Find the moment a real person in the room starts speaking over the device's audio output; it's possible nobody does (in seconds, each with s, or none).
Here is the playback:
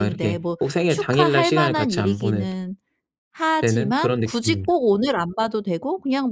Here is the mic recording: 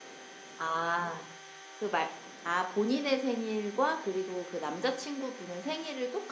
0.6 s